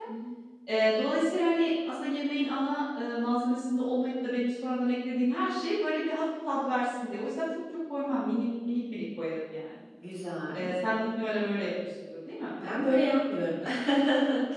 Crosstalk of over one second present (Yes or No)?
No